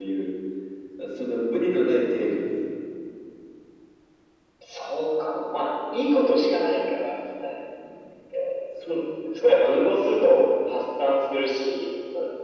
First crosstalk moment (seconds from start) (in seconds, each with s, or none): none